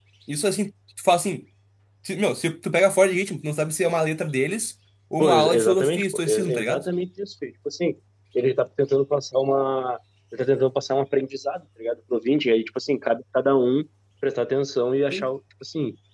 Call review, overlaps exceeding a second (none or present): present